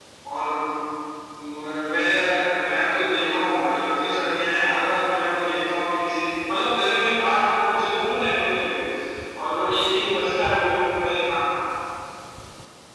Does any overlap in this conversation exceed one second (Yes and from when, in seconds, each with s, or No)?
No